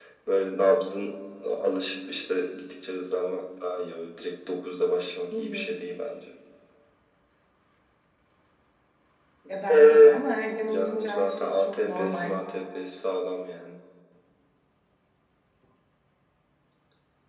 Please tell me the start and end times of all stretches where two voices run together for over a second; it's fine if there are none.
10.7-12.4

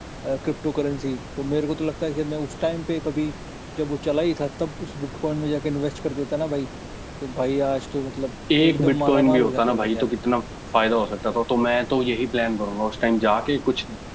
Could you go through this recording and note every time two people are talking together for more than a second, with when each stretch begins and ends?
8.6-10.1

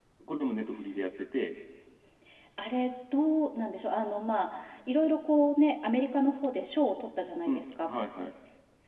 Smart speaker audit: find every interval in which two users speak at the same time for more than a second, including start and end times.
none

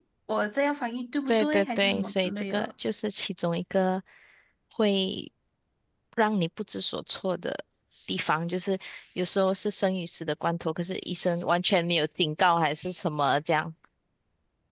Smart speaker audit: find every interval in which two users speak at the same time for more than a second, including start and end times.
1.3-2.7

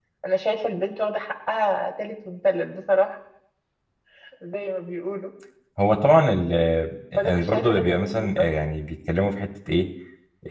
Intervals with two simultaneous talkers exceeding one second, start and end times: 7.2-8.4

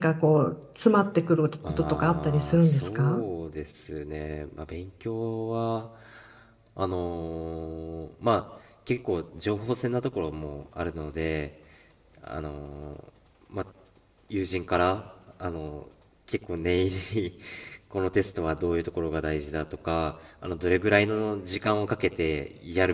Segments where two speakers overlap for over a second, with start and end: 1.6-3.2

